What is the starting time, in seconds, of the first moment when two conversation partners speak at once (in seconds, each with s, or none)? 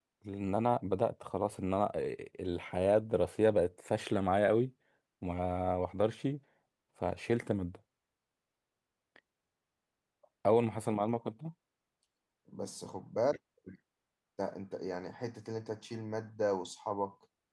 none